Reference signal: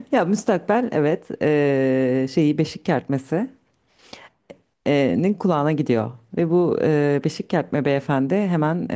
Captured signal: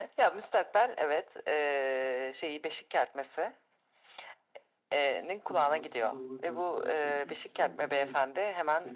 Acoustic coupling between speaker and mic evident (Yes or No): Yes